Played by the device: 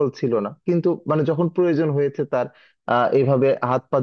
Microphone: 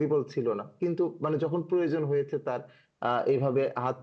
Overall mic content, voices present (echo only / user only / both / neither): echo only